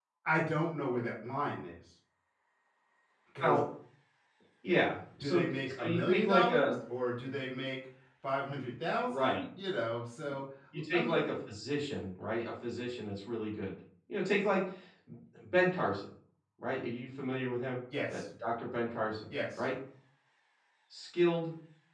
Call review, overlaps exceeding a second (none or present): present